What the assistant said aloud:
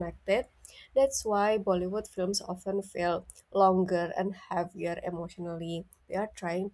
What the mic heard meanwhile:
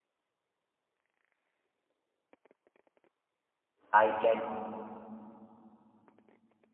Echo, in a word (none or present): none